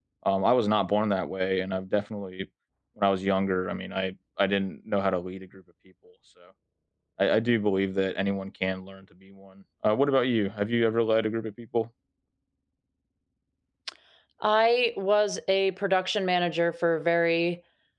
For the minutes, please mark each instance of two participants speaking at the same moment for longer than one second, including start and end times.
none

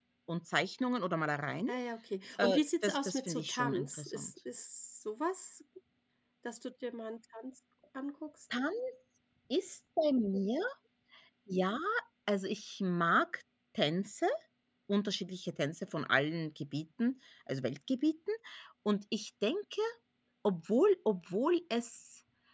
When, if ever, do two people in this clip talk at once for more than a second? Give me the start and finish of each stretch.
2.4-4.3

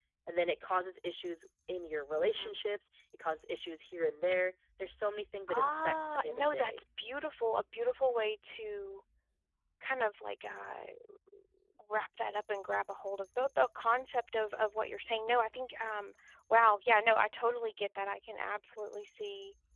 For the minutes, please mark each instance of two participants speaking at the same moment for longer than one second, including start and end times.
5.5-6.8

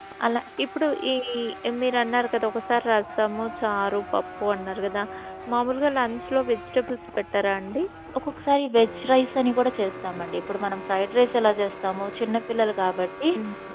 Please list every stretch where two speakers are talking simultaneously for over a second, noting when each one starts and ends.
none

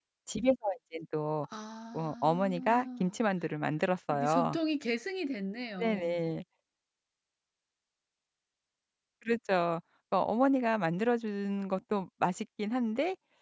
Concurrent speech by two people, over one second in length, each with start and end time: 1.9-3.2

